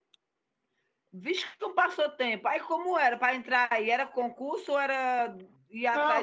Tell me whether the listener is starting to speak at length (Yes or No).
Yes